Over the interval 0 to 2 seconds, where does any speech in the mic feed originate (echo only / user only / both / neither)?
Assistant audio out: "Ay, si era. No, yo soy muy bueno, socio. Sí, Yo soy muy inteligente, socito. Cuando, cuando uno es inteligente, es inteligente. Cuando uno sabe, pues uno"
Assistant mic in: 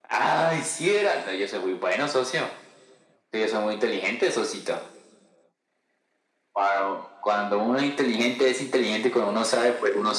echo only